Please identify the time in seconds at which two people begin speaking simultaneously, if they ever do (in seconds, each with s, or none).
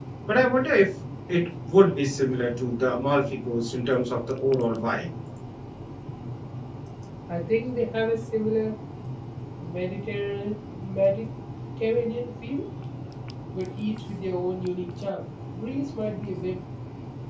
none